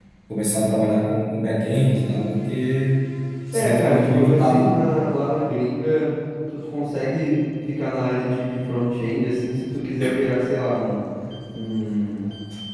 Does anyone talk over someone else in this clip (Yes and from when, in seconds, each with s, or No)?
Yes, from 3.5 s